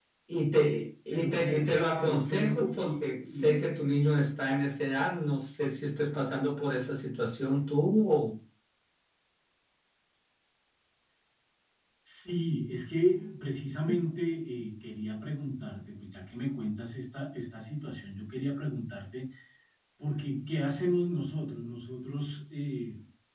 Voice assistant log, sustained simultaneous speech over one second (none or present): present